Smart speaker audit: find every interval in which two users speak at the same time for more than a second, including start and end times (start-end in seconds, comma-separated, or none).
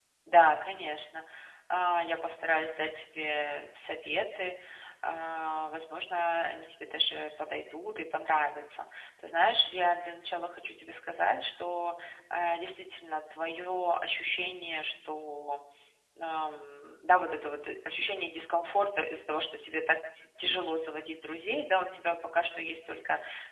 none